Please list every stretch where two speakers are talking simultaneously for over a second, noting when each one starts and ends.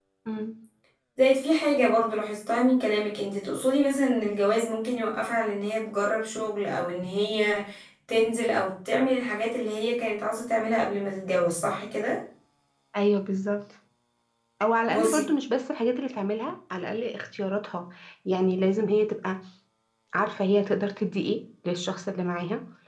none

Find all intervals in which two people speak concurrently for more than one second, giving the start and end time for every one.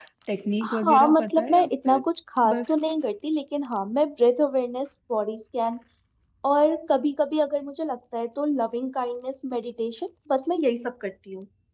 0.6-2.0

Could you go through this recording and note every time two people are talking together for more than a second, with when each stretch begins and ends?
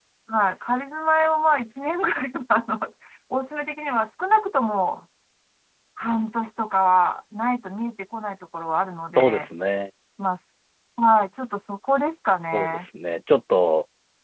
none

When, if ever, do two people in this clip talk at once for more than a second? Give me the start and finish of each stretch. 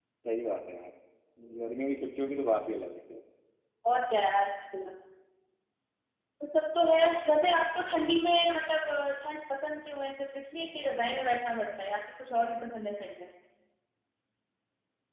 none

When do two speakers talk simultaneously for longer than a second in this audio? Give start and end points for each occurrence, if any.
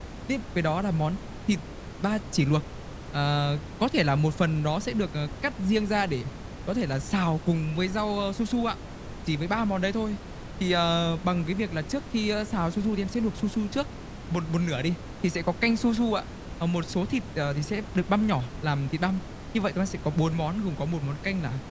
none

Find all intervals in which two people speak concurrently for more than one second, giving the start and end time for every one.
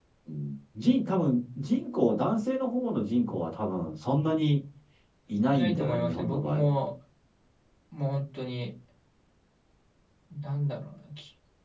5.5-6.7

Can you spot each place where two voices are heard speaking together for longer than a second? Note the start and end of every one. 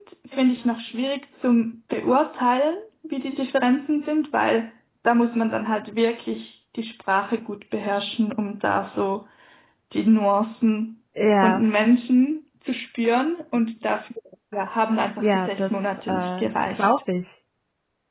15.2-16.9

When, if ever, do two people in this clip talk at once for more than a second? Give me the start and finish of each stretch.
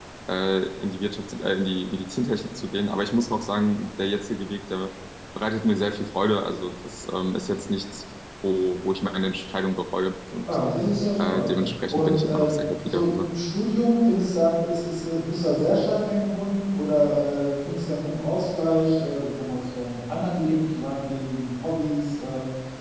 11.9-13.3

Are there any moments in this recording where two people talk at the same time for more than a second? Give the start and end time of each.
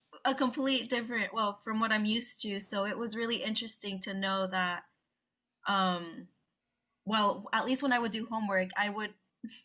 none

